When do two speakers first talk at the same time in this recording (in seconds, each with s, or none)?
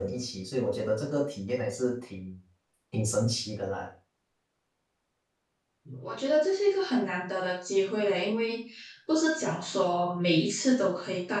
none